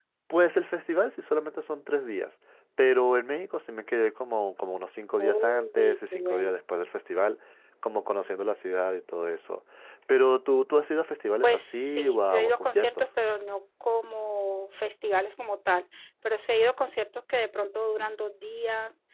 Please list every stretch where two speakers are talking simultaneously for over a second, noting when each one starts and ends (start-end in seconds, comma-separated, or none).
5.2-6.5, 11.4-13.1